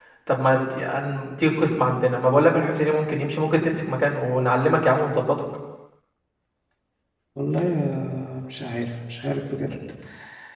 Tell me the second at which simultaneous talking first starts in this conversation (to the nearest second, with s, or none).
none